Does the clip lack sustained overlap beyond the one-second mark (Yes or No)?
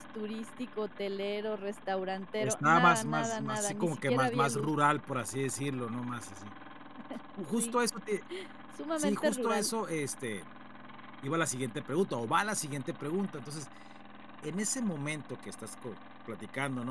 No